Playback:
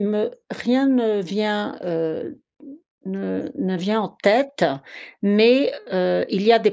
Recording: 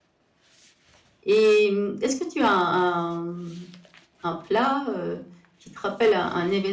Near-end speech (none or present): present